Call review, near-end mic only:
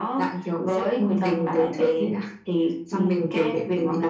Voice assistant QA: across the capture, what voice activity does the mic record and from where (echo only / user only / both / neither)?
echo only